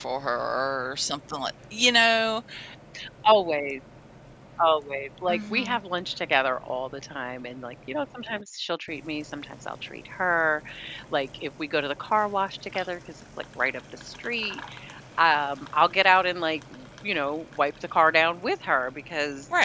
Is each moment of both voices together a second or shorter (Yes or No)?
Yes